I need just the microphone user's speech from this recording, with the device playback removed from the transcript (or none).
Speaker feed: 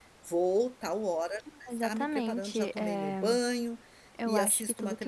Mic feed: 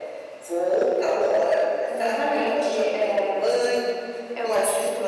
none